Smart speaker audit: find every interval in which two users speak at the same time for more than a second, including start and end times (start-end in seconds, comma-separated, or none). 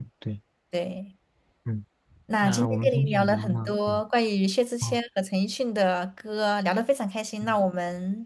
2.4-3.9